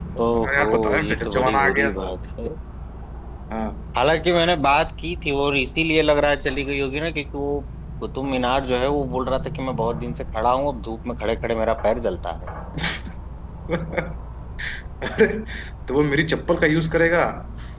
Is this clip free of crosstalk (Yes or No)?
No